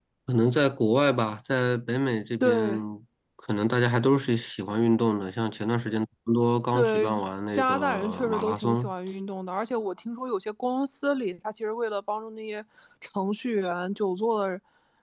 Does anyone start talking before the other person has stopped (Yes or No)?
Yes